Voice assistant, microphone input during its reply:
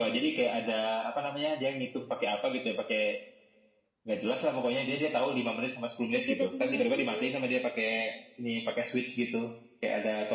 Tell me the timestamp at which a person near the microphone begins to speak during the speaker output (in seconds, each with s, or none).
6.1 s